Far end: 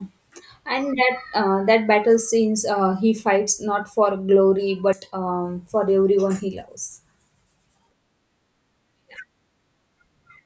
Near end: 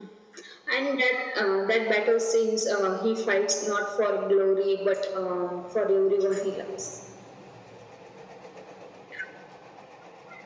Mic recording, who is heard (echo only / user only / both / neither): echo only